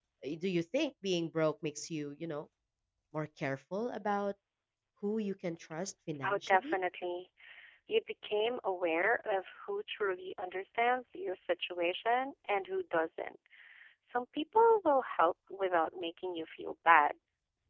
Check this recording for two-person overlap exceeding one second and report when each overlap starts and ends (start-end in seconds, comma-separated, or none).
none